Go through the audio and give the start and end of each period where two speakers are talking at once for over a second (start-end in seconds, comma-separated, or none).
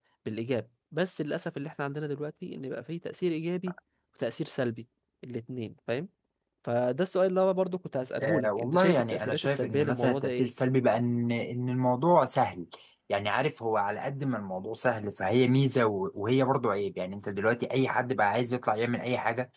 8.2-10.5